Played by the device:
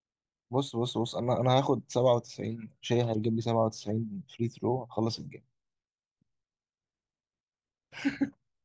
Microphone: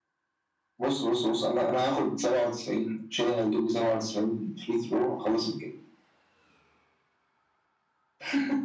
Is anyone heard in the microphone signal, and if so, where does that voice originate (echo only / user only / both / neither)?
echo only